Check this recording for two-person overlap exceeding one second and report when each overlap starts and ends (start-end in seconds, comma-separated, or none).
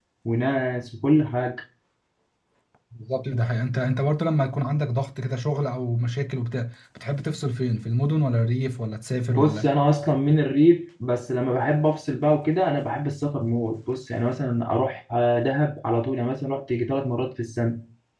none